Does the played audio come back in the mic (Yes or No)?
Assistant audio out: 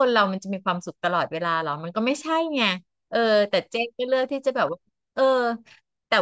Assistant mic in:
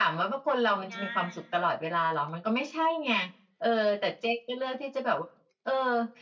Yes